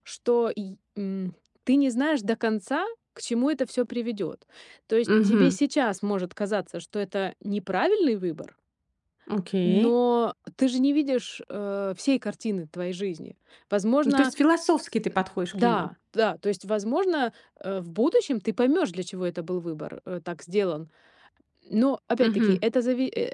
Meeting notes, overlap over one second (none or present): none